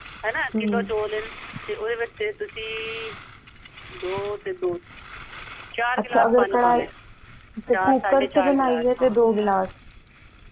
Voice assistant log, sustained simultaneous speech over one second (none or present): present